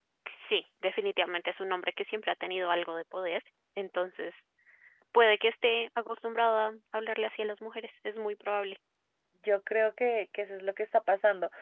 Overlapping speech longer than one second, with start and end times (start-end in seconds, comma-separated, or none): none